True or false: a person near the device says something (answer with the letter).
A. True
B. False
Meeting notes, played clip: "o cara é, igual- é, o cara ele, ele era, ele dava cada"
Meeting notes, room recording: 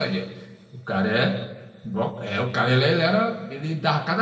B